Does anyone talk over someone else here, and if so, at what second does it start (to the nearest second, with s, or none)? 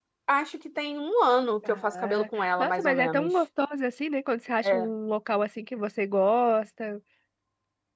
2 s